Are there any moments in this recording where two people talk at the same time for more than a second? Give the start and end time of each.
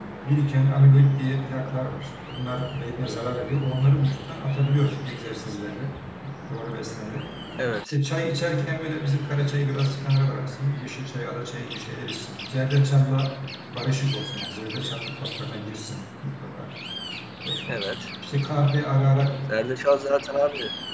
none

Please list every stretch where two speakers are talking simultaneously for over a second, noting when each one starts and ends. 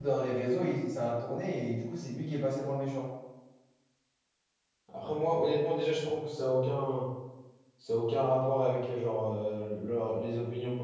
none

